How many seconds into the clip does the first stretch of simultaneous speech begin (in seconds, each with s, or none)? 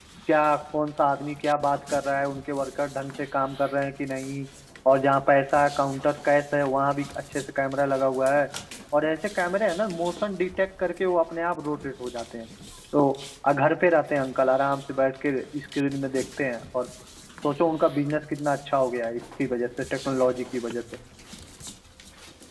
none